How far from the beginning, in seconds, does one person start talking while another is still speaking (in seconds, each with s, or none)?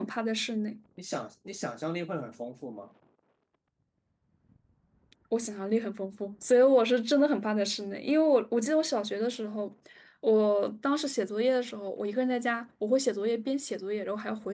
none